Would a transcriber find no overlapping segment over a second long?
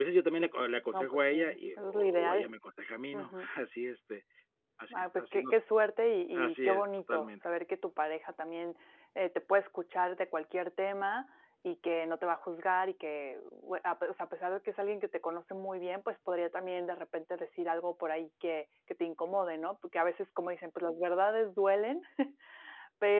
No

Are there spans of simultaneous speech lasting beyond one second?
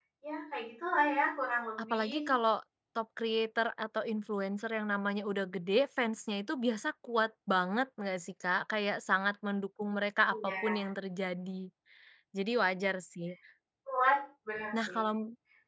No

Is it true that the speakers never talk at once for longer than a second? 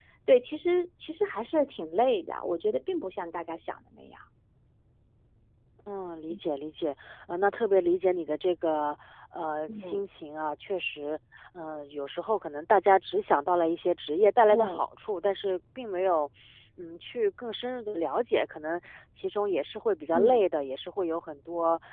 Yes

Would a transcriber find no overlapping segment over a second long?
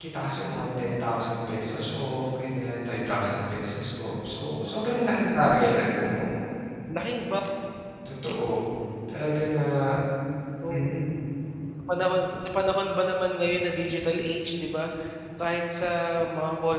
Yes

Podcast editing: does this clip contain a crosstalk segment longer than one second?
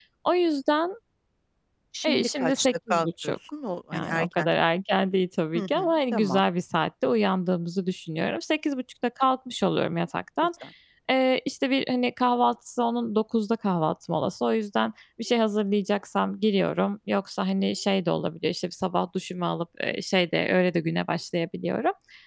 Yes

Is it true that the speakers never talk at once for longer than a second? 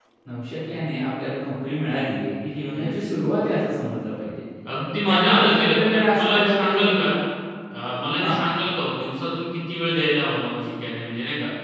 No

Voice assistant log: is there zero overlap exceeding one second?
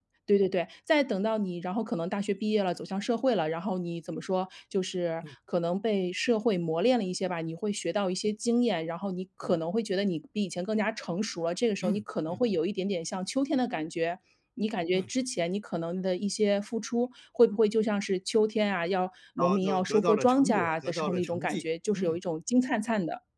No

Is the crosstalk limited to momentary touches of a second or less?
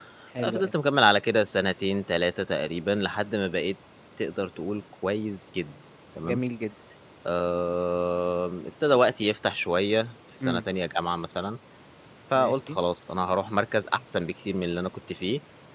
Yes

